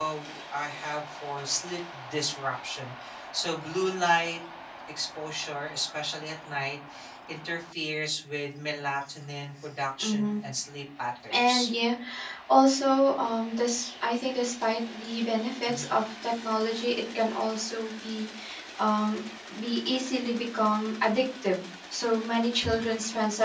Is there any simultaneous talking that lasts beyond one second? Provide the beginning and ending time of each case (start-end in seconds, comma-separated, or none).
none